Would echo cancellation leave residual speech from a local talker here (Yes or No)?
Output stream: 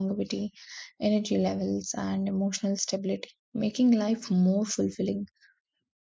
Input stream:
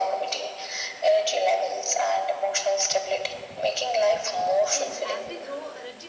Yes